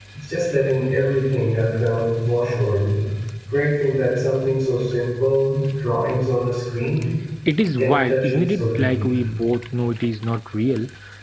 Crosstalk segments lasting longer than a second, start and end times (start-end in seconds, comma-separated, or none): 7.8-9.2